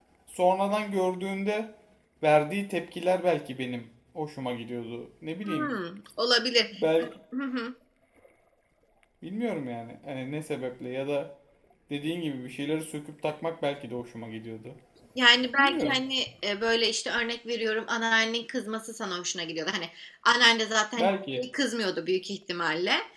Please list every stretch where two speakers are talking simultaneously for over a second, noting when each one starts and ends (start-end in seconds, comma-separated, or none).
none